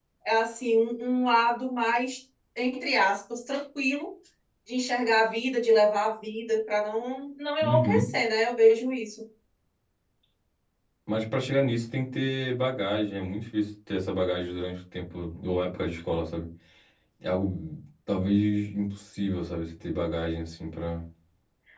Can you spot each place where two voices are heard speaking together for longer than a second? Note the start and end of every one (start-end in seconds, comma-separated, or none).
none